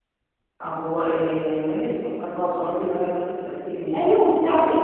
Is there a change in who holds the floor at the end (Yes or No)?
Yes